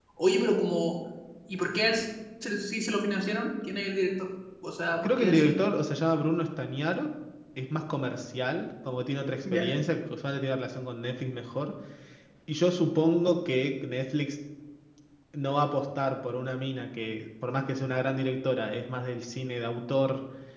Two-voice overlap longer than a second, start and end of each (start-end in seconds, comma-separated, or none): none